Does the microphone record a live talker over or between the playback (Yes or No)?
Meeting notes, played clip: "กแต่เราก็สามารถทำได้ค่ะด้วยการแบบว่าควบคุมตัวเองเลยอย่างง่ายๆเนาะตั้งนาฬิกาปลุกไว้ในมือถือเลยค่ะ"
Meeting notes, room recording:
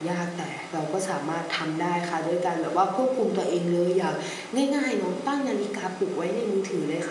No